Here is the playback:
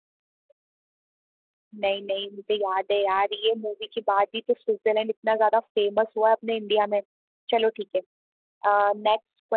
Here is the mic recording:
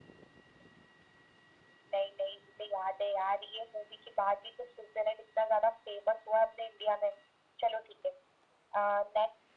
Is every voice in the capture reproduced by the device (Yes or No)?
Yes